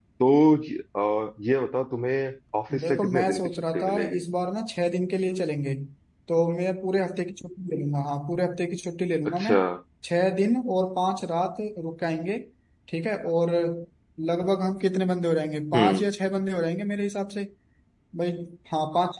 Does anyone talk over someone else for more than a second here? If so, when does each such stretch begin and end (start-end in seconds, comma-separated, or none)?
2.8-4.2